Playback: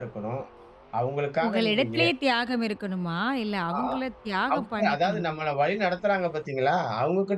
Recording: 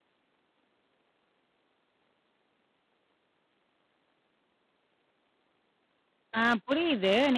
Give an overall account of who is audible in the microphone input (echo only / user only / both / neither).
user only